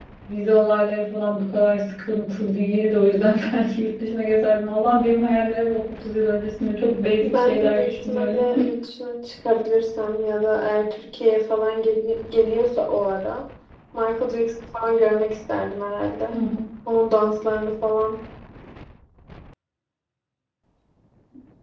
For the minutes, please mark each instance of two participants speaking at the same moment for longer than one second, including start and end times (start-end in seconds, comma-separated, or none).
7.2-8.5